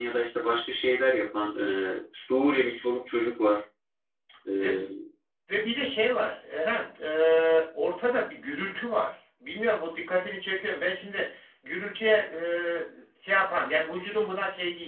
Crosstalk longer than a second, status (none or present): none